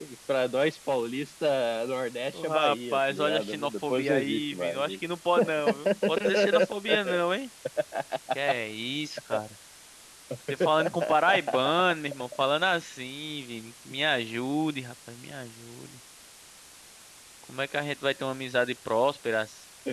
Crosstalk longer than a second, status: present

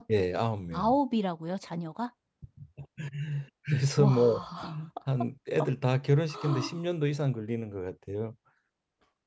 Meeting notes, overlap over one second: none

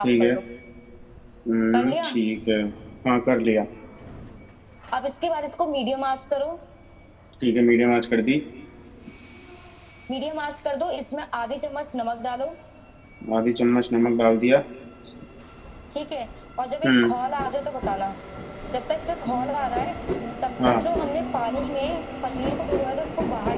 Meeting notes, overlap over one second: none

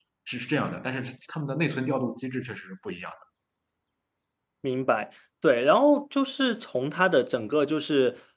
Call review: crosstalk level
none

